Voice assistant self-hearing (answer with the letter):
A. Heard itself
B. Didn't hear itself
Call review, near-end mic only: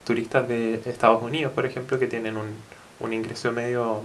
B